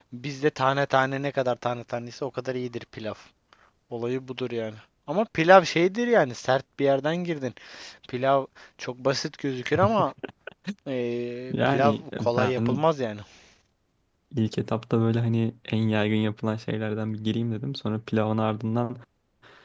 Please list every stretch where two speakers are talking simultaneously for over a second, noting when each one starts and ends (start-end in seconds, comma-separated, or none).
11.5-12.8